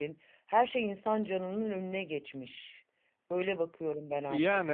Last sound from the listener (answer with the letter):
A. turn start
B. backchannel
A